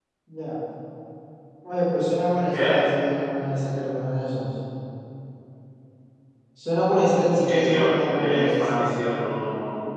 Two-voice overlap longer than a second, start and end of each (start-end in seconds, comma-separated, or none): 7.4-8.9